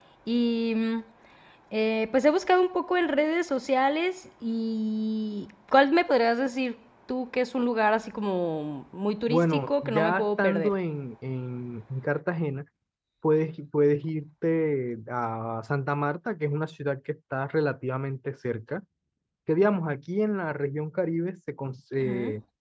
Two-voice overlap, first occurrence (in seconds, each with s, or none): 9.3 s